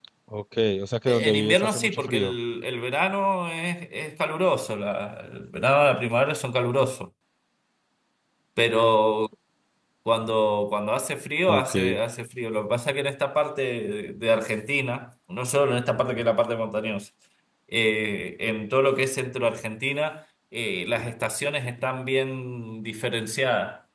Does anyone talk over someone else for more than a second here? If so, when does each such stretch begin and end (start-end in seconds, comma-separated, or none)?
1.1-2.3